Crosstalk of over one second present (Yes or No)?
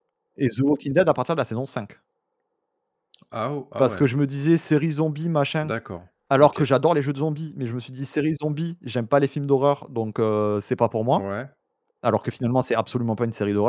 No